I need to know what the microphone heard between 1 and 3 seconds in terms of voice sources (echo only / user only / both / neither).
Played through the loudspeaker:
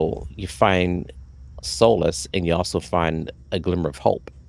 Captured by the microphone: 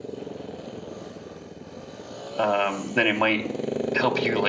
user only